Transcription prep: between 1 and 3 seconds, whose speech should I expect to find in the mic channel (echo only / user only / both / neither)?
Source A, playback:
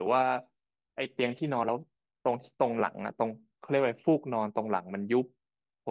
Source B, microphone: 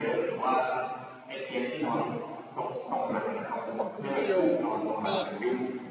echo only